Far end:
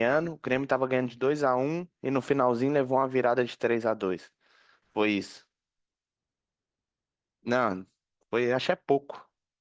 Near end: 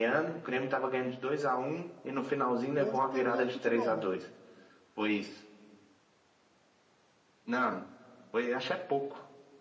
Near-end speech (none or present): present